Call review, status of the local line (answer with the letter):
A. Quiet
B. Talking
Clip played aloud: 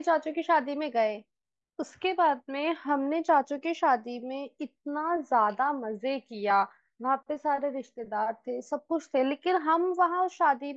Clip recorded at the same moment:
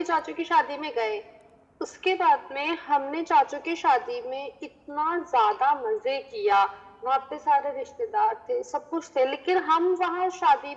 A